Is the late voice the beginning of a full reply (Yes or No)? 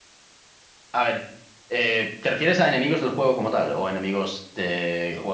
Yes